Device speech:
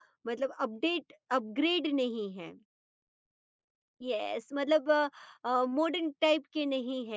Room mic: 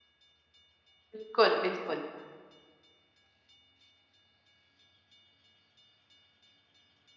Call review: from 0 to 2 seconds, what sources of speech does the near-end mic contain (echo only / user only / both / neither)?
user only